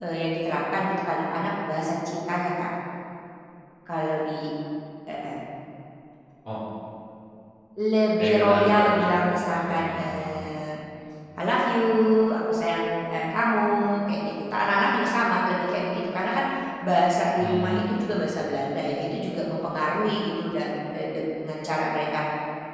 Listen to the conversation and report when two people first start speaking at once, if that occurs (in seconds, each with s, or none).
8.2 s